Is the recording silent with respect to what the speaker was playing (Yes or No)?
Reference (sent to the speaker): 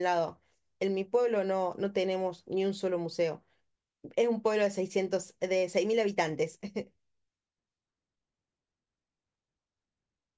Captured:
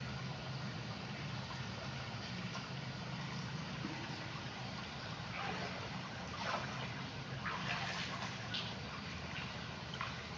Yes